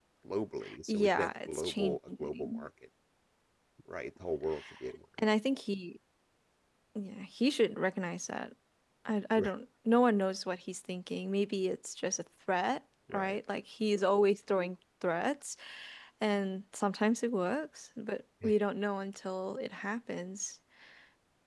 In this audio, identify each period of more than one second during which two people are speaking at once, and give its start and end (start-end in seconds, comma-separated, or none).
0.9-2.6